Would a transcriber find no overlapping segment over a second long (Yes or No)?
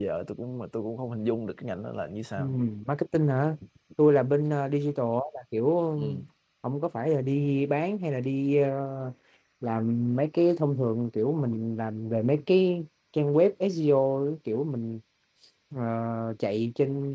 Yes